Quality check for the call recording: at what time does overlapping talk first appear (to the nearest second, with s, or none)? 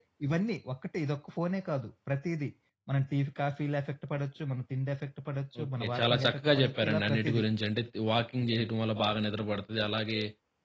6 s